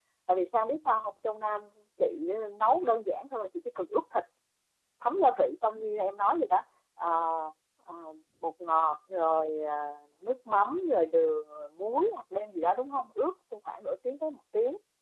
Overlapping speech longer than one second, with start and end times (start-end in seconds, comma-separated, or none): none